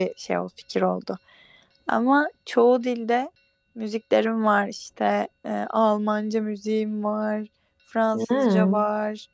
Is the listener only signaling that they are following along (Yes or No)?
Yes